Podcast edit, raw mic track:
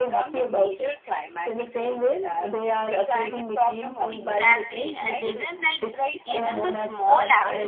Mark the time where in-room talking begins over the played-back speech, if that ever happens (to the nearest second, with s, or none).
4 s